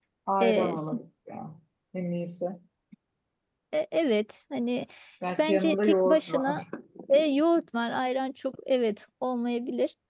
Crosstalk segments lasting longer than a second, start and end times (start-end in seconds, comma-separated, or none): 5.4-6.6